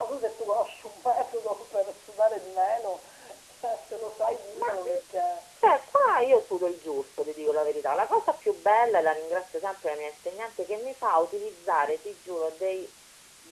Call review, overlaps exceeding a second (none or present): none